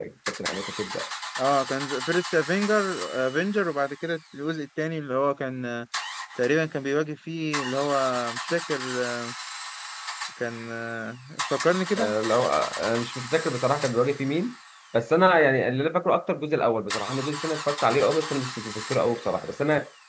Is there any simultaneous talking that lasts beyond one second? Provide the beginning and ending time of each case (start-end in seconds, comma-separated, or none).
none